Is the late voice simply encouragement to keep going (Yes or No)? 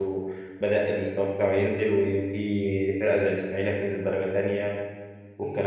No